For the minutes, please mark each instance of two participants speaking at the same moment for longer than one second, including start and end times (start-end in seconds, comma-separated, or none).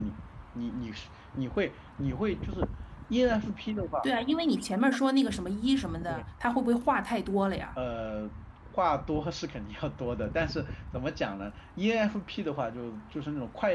none